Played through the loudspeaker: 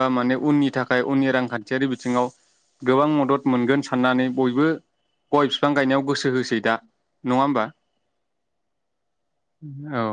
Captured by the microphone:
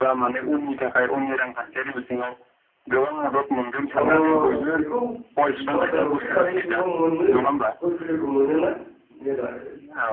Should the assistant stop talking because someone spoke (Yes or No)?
Yes